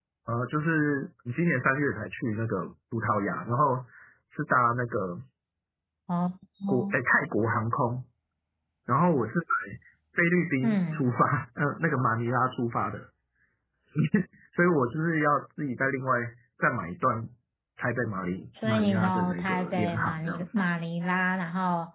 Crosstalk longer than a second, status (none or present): present